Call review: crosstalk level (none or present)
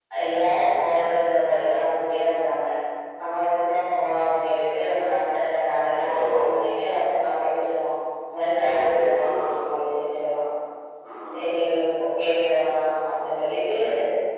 present